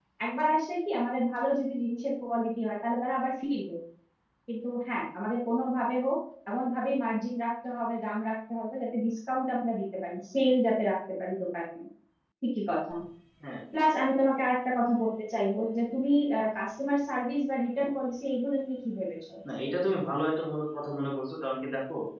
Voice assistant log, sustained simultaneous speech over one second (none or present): none